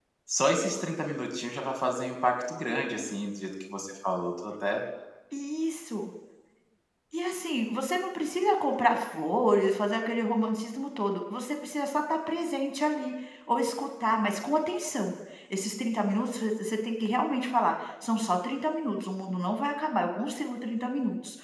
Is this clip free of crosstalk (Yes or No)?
Yes